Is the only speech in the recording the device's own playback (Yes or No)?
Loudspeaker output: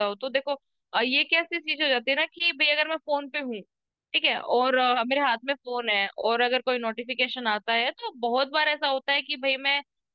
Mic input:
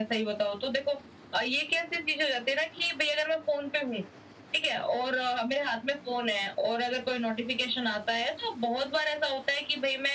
Yes